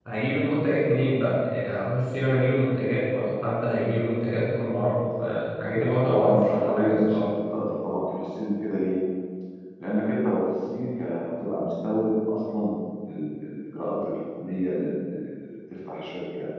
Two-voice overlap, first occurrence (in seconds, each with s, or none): 5.7 s